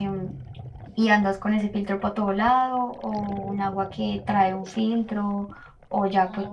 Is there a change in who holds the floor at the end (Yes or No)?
No